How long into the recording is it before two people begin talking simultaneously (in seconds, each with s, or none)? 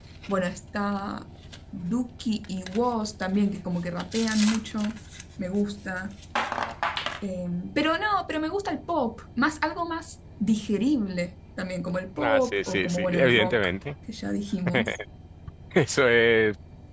12.2 s